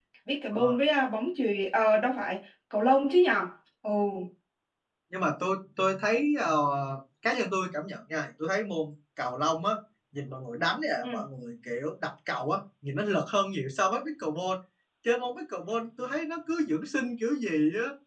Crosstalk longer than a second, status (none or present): none